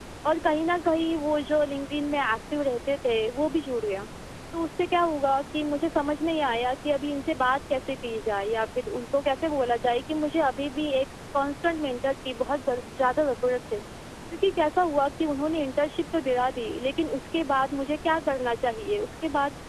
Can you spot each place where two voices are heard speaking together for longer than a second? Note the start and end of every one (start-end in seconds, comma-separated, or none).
none